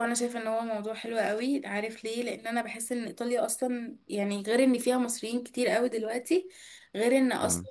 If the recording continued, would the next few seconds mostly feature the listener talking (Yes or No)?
No